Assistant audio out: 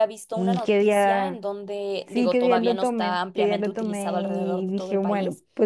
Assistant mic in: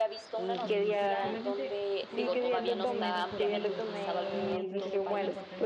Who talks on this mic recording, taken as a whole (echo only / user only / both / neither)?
both